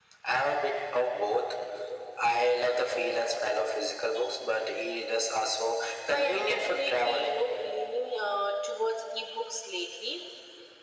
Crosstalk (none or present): present